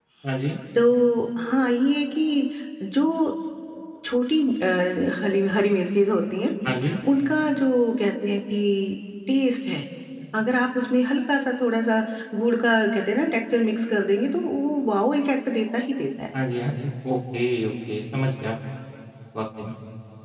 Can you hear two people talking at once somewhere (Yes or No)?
No